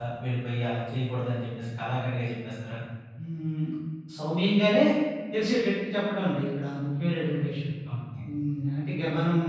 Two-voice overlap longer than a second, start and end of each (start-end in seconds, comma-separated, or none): none